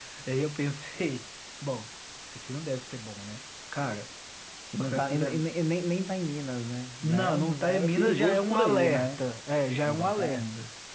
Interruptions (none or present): present